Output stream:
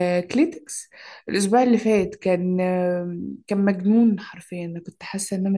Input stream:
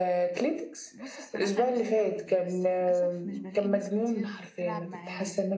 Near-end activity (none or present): present